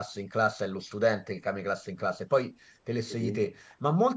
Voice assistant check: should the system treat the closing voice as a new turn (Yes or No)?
No